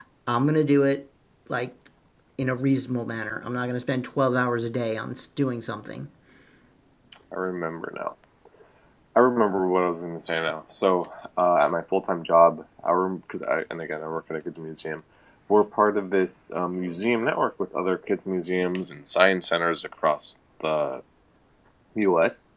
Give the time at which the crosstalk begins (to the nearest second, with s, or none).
none